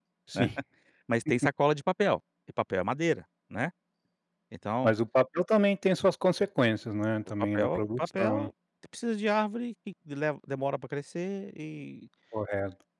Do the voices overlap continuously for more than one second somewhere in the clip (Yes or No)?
Yes